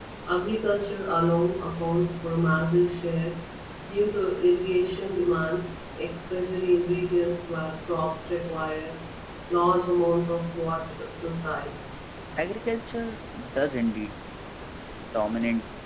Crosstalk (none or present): none